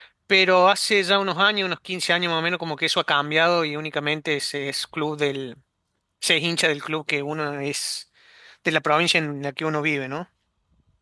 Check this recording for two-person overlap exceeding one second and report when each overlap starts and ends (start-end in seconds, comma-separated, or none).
none